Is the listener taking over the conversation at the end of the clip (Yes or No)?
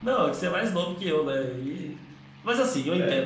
No